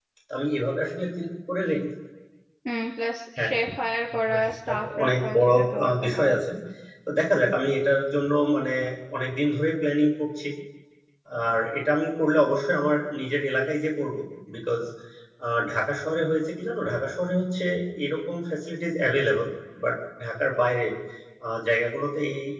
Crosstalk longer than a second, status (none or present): present